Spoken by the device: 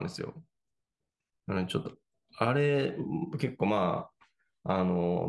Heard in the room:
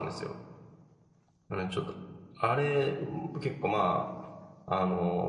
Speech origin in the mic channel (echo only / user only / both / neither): echo only